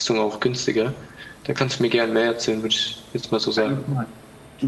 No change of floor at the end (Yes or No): No